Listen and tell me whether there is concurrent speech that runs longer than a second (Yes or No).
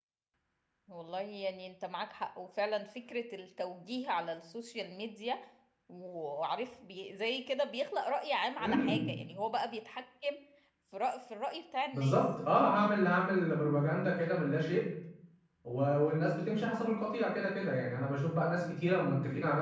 No